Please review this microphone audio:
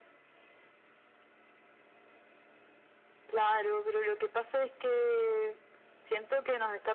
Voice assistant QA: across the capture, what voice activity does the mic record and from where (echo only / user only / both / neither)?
echo only